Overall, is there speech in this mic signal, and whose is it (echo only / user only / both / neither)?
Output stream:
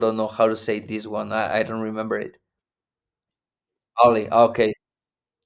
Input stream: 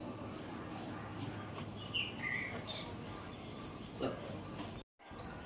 neither